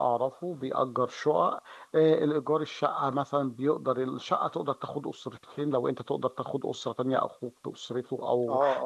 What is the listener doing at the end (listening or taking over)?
taking over